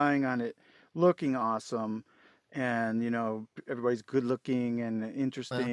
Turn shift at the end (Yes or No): No